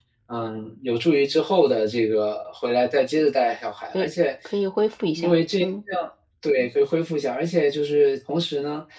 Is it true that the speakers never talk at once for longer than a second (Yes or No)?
Yes